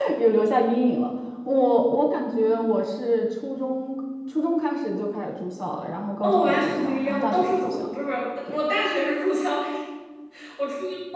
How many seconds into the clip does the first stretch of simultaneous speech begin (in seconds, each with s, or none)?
6.2 s